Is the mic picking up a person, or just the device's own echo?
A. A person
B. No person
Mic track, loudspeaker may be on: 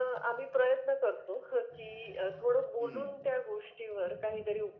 A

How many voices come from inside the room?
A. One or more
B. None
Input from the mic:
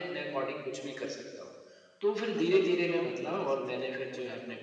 A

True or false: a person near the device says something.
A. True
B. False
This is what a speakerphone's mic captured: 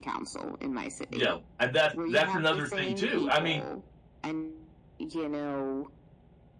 A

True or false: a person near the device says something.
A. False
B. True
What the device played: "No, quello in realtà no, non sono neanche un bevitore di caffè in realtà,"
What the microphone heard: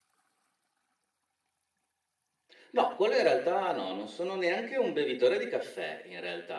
A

